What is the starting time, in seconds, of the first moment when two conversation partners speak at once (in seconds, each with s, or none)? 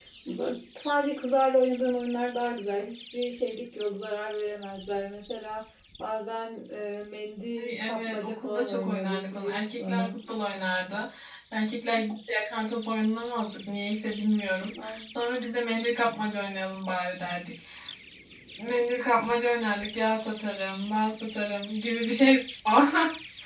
7.6 s